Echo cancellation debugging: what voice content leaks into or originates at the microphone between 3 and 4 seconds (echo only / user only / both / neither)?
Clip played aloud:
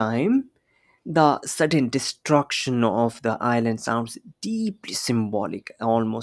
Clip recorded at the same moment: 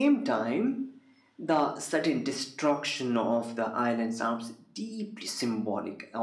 echo only